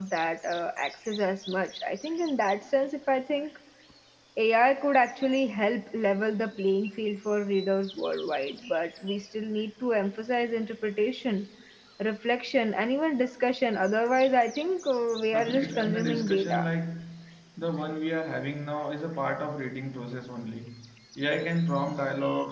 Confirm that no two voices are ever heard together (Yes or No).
No